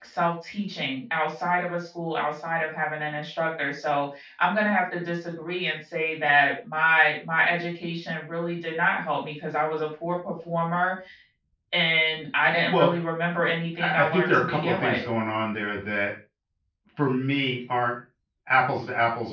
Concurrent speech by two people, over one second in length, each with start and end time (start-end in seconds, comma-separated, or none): 13.8-15.0